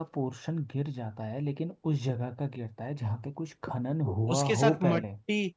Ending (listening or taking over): taking over